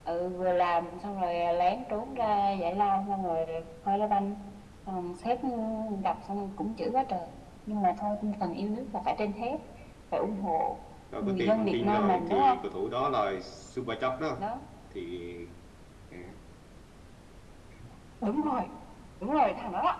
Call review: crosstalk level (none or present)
present